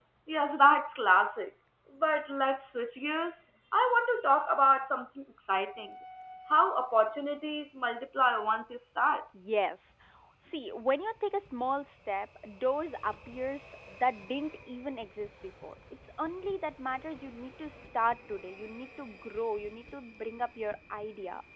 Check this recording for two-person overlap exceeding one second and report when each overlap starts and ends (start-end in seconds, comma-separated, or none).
none